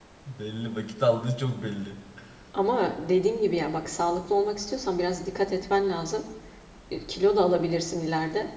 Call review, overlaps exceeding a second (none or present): none